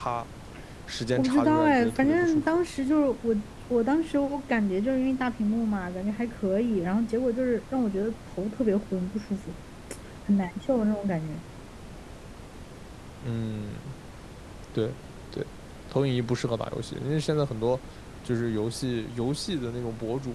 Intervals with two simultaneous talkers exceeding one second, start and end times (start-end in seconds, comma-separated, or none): 1.1-2.6